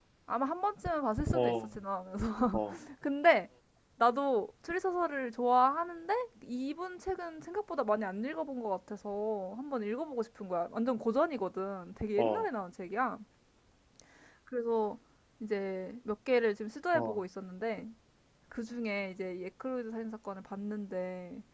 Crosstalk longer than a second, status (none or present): none